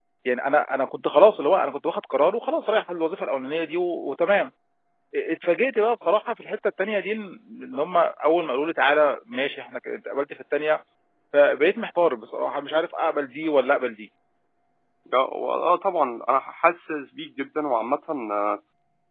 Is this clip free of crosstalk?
Yes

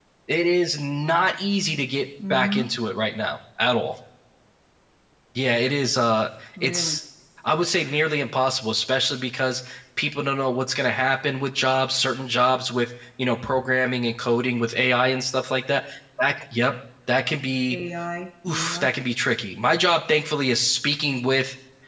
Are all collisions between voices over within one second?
Yes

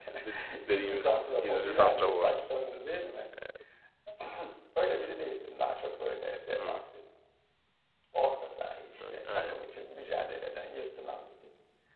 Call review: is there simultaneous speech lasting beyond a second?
Yes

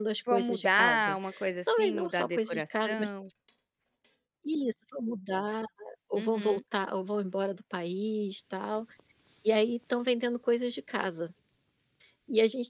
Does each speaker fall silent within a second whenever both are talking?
No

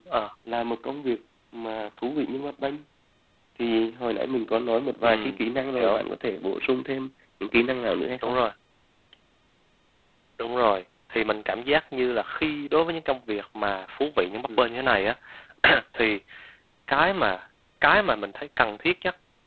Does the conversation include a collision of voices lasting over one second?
No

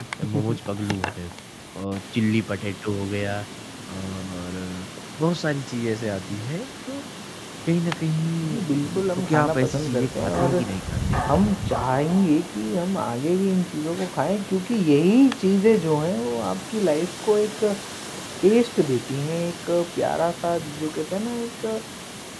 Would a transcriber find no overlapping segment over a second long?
No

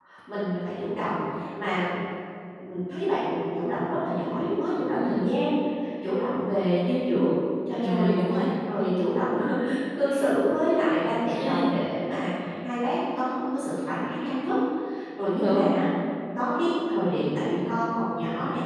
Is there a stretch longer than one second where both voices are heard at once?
No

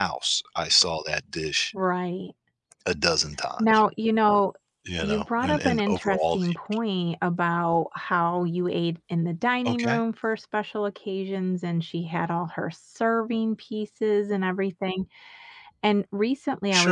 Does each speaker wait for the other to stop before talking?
No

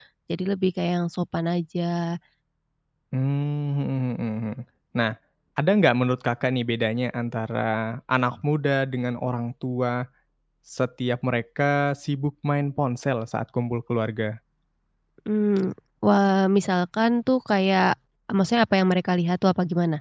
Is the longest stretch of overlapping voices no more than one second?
Yes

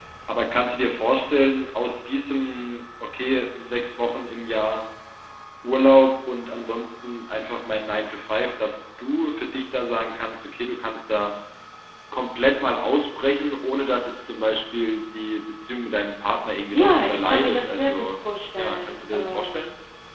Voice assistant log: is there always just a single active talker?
No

